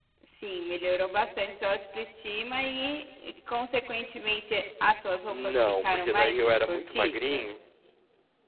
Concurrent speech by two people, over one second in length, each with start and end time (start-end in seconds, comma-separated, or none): 5.3-7.5